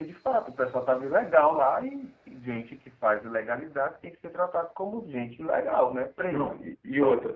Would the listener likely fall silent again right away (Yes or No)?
No